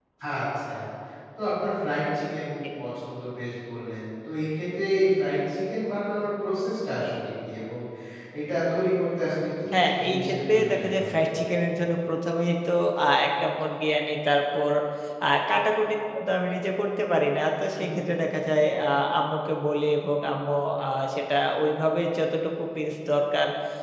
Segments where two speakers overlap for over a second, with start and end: 9.7-11.2

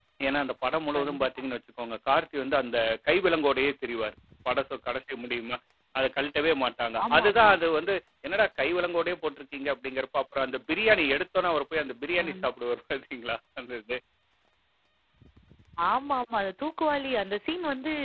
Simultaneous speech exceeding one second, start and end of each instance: none

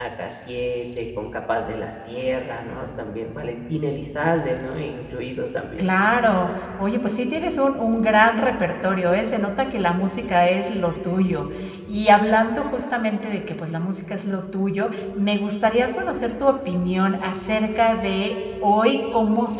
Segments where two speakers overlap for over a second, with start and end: none

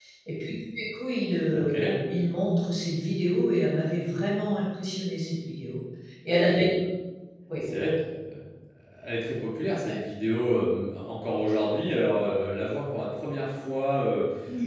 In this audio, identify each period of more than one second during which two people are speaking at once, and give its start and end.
none

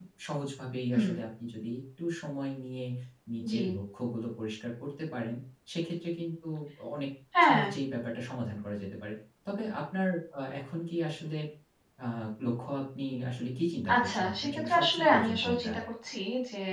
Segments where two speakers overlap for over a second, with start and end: 13.9-15.7

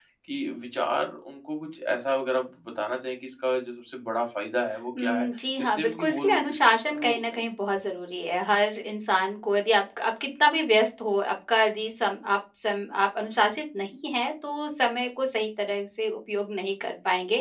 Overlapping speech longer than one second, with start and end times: 5.6-7.4

